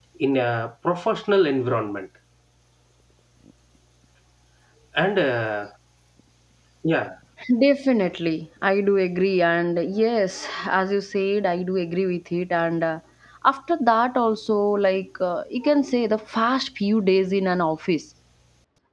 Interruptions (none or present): none